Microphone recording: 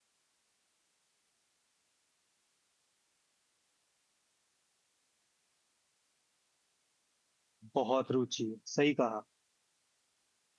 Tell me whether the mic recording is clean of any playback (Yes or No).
Yes